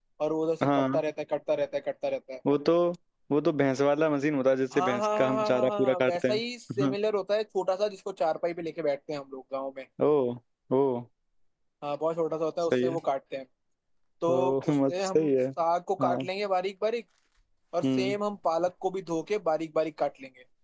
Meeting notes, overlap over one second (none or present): present